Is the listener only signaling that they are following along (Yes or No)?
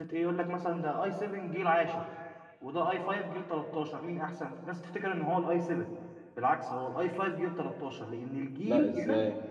No